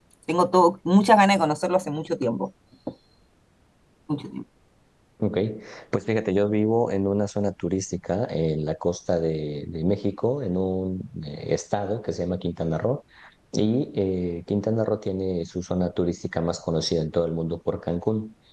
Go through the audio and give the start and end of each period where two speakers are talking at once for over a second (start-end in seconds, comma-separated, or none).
none